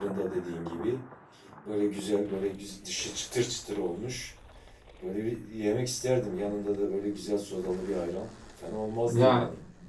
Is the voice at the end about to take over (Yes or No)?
Yes